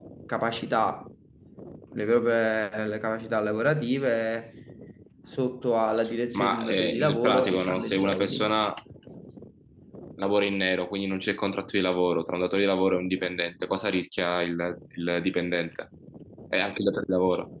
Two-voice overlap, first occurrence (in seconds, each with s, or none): 6.3 s